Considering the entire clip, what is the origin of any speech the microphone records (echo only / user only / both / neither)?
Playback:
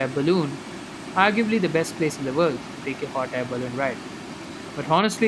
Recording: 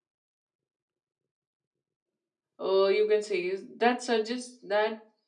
user only